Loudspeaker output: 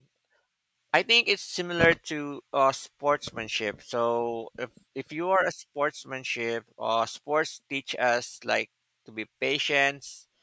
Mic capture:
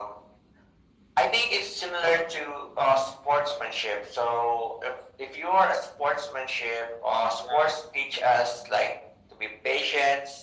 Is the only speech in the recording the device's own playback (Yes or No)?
No